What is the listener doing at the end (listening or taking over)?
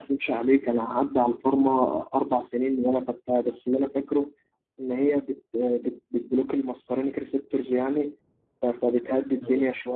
listening